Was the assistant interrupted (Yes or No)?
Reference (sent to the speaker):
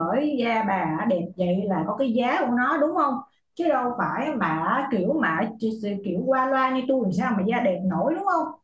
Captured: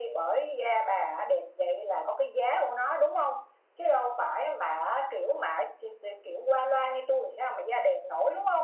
No